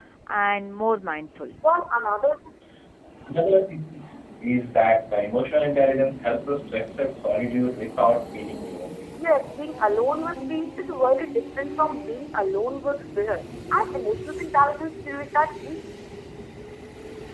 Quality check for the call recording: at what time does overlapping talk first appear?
none

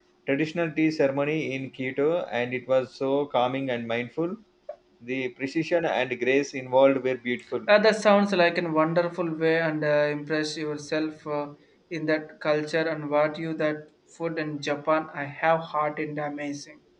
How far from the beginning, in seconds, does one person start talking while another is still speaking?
none

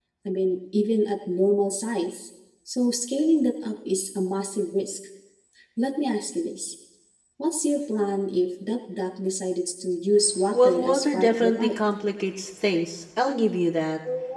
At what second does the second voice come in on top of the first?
11 s

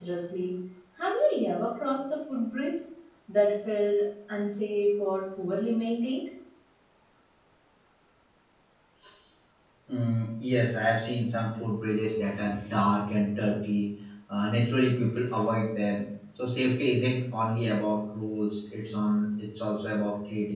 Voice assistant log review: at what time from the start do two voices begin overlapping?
none

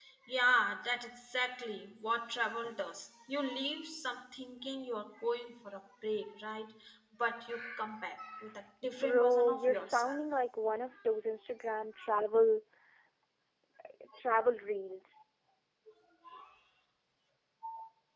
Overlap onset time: 9 s

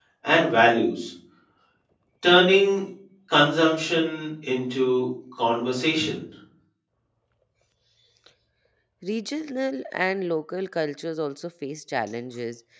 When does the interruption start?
none

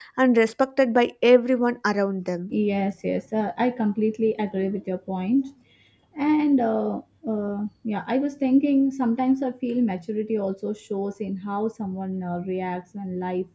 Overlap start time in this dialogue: none

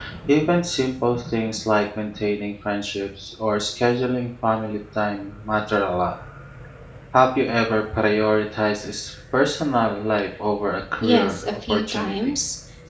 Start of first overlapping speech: 11 s

